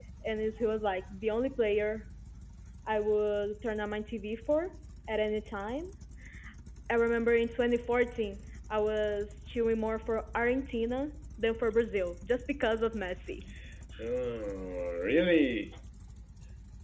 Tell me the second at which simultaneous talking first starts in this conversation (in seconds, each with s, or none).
none